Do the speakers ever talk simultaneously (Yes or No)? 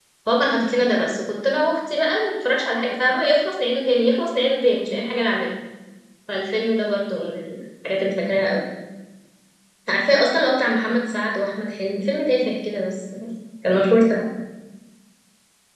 No